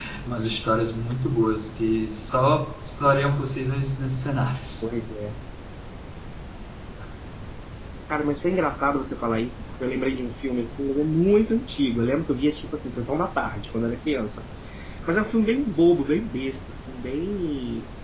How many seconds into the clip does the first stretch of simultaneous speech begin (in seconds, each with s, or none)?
none